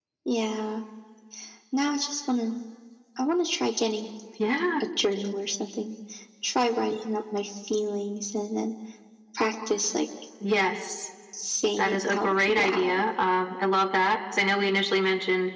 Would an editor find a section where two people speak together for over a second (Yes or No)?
Yes